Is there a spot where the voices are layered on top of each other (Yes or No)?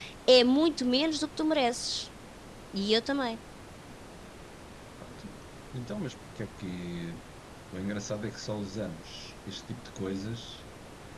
No